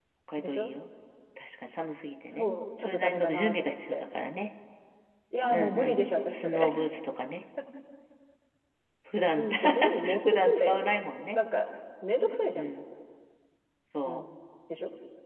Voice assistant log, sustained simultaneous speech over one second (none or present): present